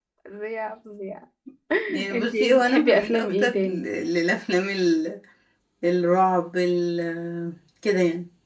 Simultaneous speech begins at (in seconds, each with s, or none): 2.1 s